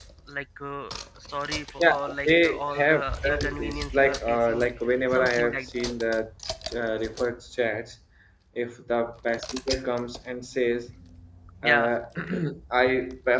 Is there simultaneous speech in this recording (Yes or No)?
Yes